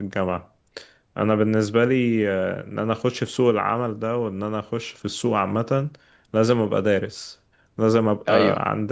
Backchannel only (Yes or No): Yes